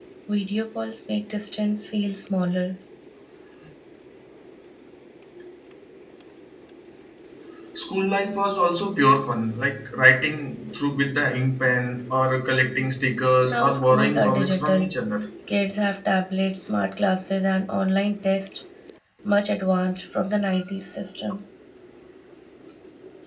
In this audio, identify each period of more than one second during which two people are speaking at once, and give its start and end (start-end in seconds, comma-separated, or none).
13.4-14.9